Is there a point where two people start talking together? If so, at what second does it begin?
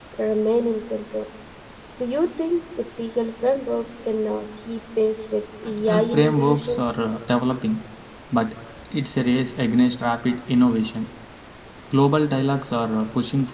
5.6 s

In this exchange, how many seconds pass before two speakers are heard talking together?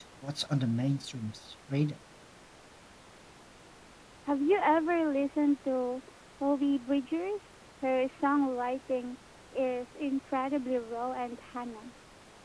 none

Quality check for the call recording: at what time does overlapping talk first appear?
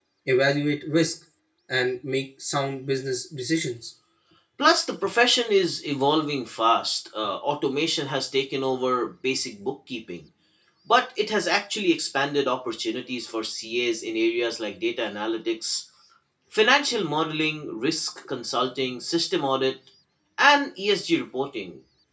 none

